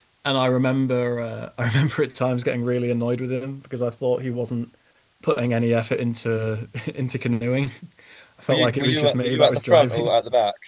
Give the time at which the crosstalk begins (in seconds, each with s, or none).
8.5 s